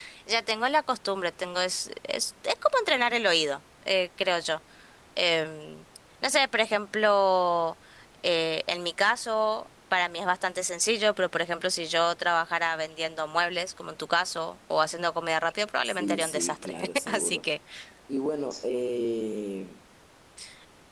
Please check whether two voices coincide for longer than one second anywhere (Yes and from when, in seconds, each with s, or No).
Yes, from 15.8 s